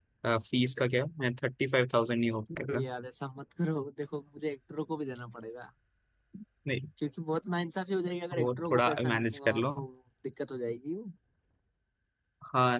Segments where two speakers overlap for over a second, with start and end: 8.4-9.7

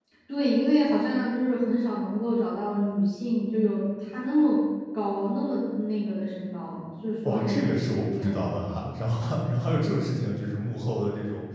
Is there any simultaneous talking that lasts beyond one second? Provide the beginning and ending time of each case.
7.2-8.5

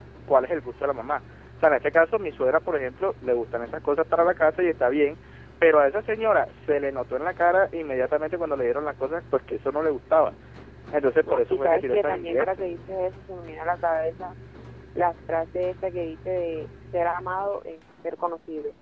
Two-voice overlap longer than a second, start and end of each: 11.2-12.5

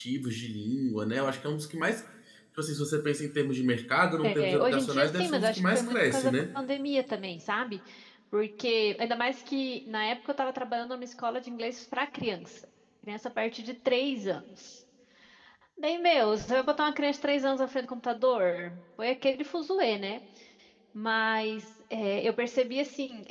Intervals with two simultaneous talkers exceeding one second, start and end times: 4.2-6.3

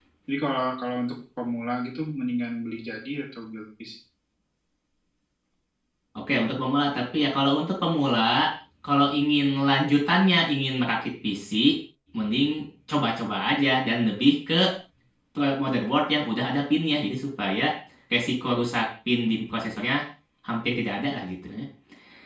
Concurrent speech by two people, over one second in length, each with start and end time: none

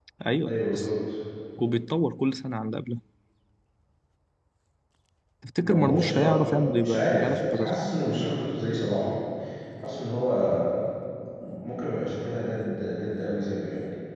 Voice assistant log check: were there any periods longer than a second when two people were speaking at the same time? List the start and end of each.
5.6-7.8

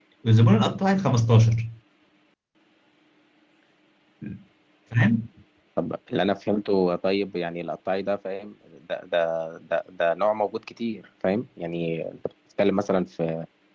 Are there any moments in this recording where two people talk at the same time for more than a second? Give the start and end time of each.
none

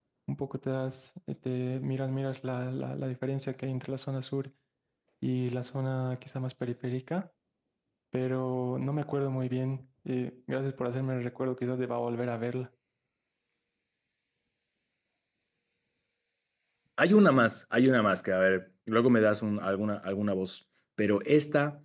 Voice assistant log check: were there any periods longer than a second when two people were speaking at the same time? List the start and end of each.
none

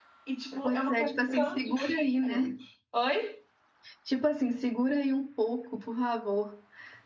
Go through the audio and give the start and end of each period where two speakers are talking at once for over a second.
0.6-2.5

